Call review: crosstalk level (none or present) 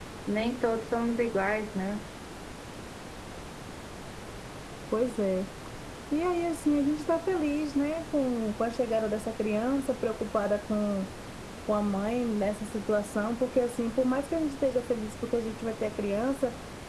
none